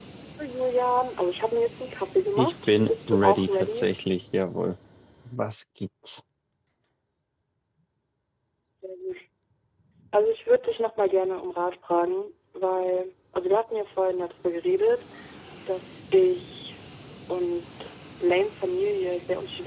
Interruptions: present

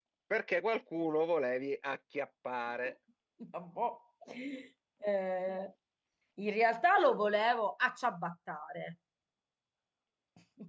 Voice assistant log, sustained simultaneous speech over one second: none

